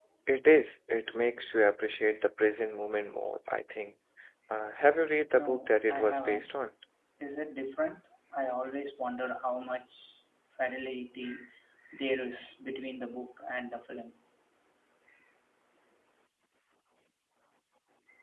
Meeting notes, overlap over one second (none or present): present